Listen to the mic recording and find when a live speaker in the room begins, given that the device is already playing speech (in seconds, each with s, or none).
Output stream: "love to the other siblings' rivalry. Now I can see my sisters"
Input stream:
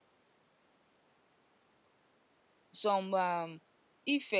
2.7 s